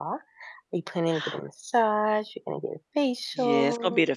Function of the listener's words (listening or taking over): taking over